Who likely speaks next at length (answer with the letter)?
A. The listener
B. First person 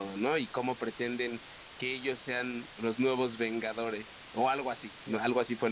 A